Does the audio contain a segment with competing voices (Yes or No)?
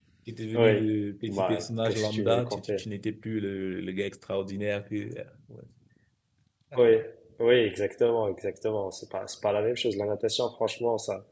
Yes